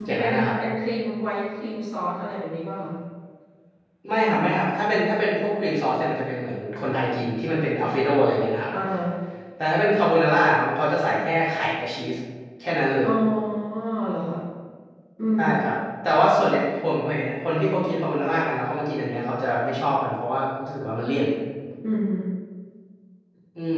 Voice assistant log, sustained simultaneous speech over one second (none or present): none